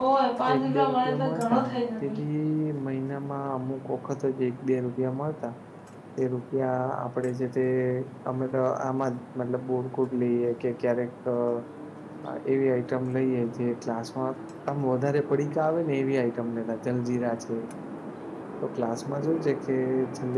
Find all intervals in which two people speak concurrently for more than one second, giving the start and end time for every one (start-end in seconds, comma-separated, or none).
0.5-2.2